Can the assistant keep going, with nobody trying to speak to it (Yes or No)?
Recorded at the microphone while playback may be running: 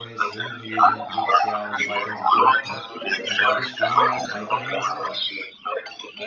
No